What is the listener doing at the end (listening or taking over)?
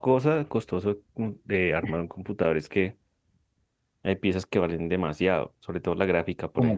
taking over